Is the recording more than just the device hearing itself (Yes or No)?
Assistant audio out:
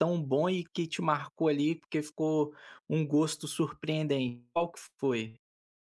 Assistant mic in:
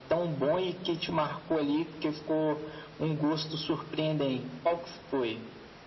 No